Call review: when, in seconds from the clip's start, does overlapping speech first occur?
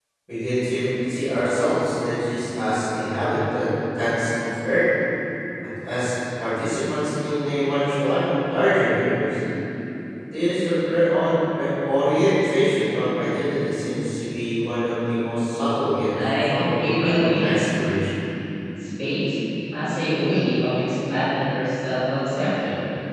16.1 s

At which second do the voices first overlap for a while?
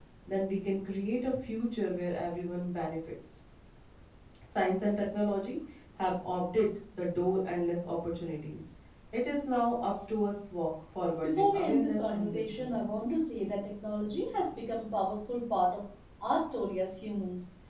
11.2 s

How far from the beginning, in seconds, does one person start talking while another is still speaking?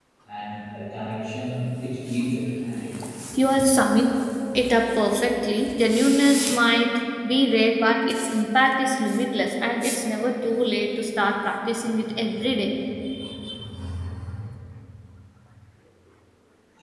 none

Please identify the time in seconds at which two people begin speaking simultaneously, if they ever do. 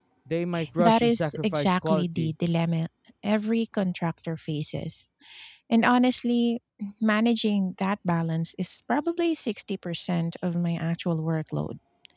0.8 s

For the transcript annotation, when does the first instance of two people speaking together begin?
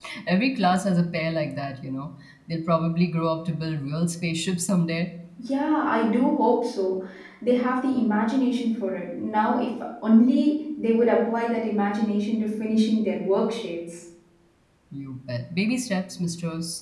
none

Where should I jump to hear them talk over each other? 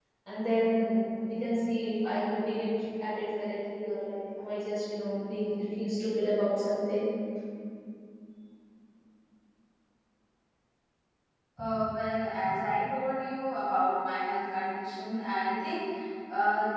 none

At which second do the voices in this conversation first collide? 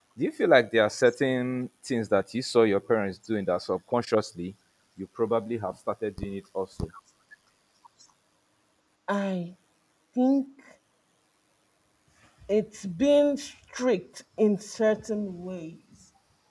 none

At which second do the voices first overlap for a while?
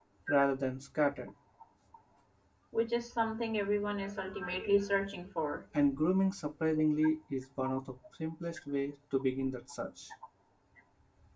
none

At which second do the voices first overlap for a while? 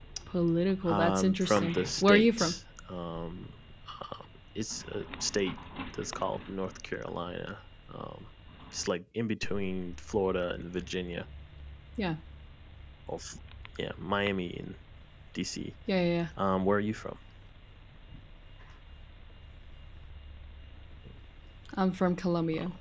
0.9 s

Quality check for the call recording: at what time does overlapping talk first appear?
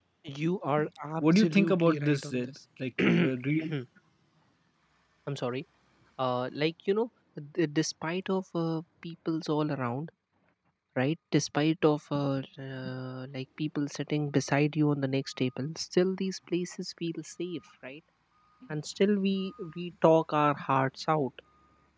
1.2 s

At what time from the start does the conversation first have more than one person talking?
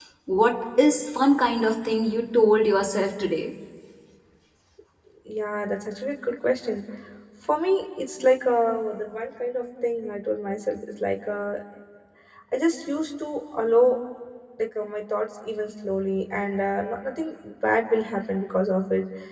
none

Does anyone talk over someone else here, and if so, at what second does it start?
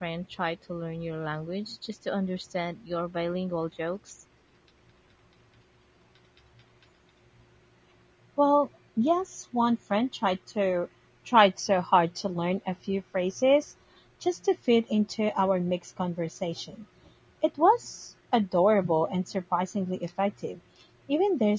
none

